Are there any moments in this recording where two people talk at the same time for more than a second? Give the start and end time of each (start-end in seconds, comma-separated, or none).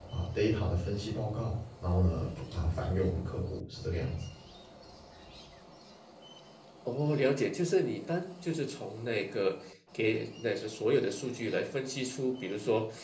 none